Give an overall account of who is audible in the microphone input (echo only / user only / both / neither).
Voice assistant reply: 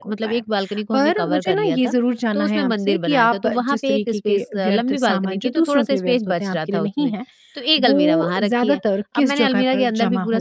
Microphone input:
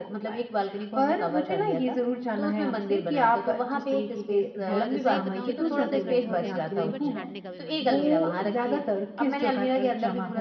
both